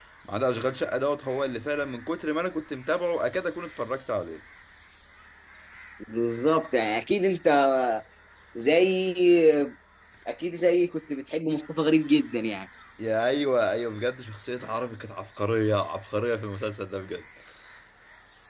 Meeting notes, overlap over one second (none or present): none